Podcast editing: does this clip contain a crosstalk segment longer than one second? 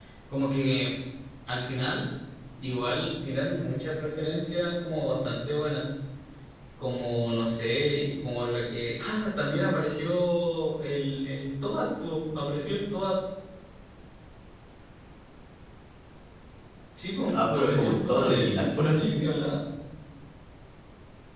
Yes, from 17.3 s

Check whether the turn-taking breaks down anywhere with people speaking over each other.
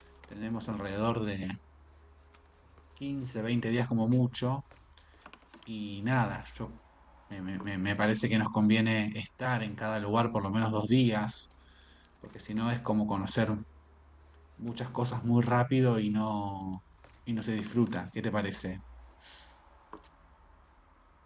No

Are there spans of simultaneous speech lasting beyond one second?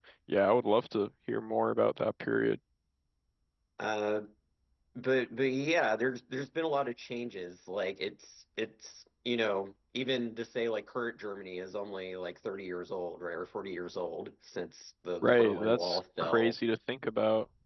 Yes, from 15.2 s

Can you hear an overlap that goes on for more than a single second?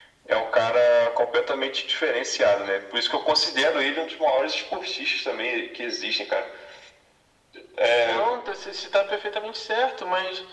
No

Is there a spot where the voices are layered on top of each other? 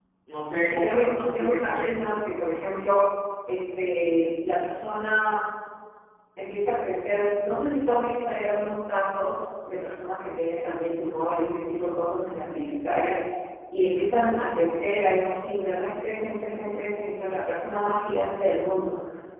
Yes, from 0.6 s

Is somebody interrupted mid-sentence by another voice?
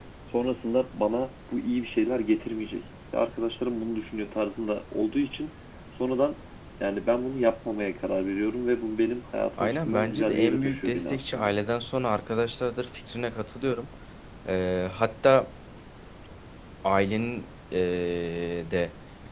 Yes, from 9.6 s

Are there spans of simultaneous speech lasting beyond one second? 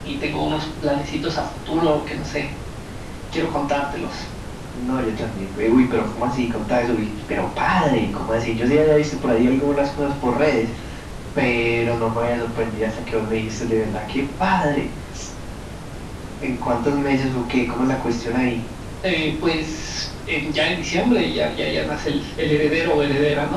No

